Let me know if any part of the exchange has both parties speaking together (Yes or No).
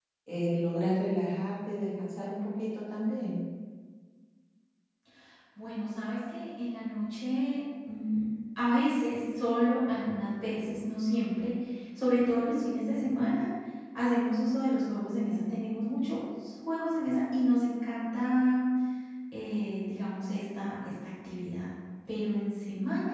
No